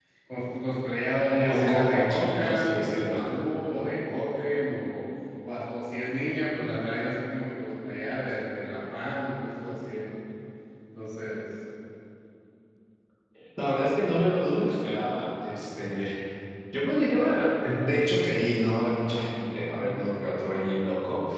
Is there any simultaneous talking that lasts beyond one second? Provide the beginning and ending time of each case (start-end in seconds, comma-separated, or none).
1.5-3.1